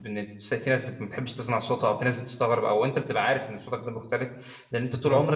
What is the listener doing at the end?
listening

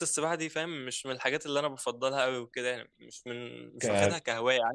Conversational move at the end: listening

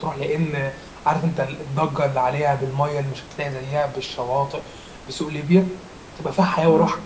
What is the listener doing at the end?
listening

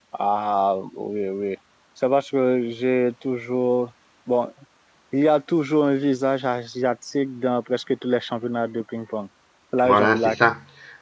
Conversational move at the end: taking over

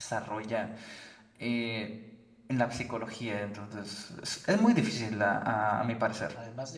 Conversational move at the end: taking over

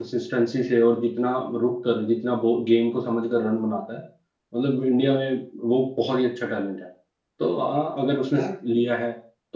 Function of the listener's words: listening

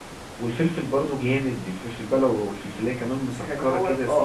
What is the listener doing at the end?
taking over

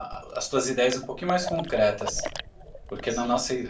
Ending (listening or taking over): listening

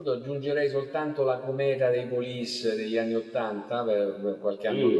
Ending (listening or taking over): taking over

